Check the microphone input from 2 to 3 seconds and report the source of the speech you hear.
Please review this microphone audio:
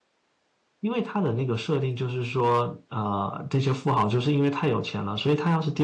user only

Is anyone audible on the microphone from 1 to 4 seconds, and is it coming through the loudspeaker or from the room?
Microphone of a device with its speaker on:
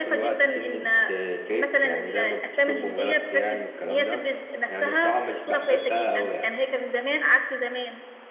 echo only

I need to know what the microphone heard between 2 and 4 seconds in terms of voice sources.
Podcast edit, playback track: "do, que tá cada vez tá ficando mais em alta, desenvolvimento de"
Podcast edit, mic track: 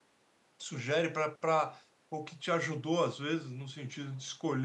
user only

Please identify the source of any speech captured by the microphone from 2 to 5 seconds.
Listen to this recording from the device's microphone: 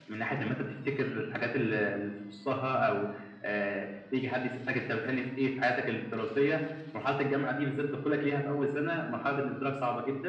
echo only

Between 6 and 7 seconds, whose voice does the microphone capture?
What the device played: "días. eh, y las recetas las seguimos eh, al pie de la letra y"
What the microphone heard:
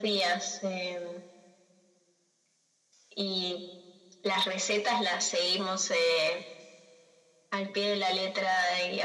echo only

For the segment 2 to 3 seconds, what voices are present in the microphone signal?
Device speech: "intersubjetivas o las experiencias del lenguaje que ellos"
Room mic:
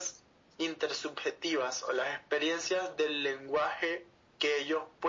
echo only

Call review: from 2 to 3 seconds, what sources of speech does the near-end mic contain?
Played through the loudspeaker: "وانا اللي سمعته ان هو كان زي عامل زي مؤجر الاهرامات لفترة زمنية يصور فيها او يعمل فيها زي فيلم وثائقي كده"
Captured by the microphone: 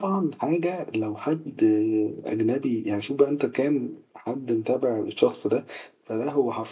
user only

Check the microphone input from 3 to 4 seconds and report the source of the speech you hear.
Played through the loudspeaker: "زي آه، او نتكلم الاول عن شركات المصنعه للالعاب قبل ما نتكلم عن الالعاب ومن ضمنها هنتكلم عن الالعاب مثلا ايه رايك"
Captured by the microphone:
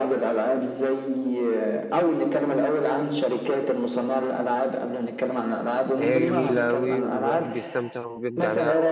echo only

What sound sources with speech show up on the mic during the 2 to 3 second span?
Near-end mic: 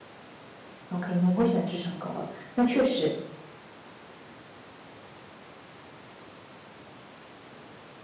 user only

